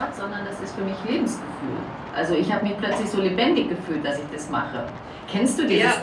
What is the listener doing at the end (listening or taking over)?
taking over